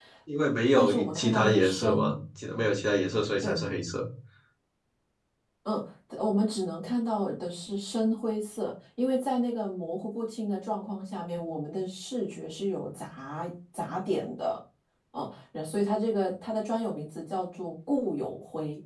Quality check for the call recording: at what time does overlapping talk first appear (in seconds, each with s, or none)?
0.8 s